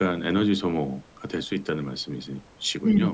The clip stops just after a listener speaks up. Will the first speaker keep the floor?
No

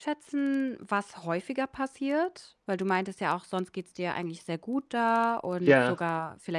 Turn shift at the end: No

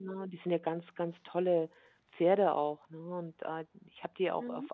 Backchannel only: Yes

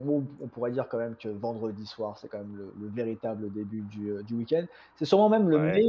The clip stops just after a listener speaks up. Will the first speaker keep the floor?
Yes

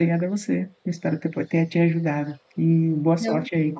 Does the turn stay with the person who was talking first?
Yes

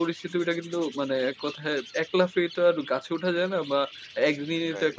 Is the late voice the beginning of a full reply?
No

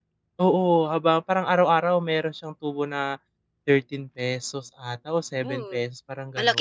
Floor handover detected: Yes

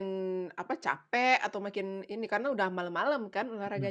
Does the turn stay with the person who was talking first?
No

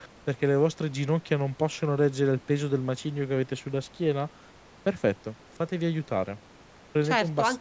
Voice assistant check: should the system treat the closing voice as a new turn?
Yes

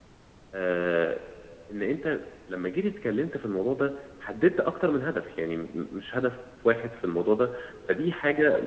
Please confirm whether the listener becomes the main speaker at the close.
No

